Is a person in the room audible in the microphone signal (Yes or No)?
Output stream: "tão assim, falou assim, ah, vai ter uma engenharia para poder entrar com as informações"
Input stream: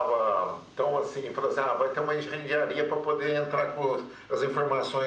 No